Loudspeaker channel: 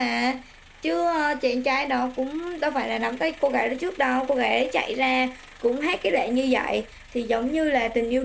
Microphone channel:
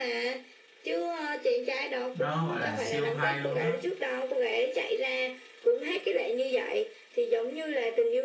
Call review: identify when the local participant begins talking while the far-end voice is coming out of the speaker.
2.1 s

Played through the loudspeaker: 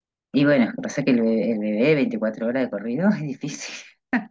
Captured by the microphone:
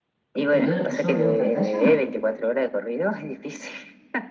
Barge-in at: 0.4 s

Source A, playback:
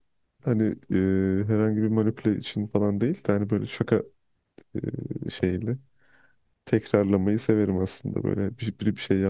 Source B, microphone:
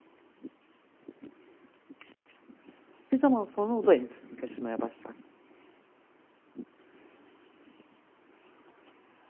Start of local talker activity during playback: 3.1 s

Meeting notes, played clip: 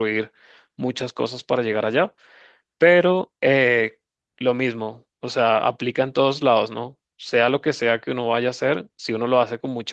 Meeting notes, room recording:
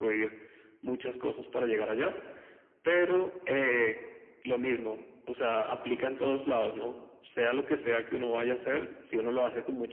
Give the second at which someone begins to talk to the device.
none

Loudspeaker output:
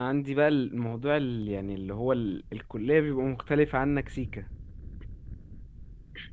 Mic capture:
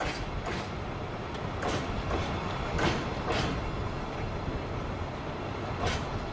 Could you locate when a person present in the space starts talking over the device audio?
none

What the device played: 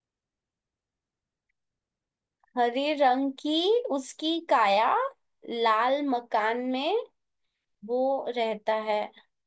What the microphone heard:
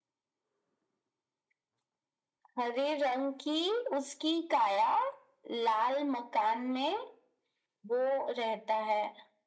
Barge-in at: none

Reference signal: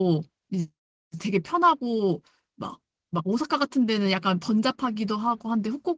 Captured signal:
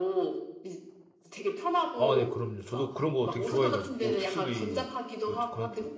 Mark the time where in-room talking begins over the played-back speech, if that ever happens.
1.9 s

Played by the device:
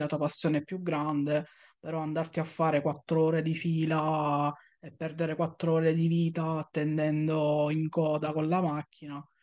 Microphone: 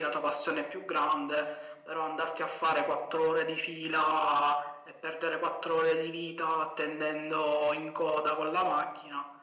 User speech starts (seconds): none

